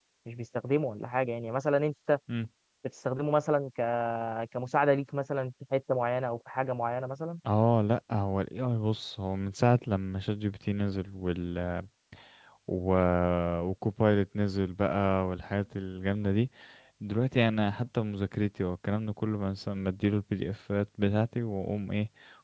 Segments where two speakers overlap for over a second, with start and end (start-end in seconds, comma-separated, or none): none